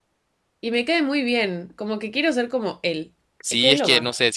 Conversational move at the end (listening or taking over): taking over